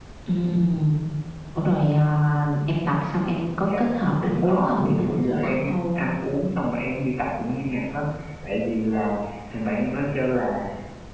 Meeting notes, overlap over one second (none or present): present